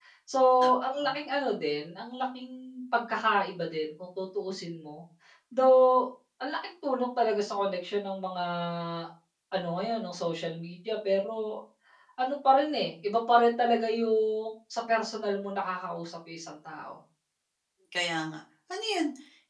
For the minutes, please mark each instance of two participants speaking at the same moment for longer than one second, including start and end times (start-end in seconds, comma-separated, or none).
none